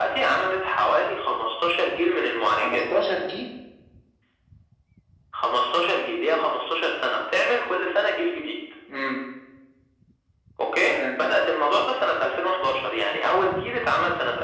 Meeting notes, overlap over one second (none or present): none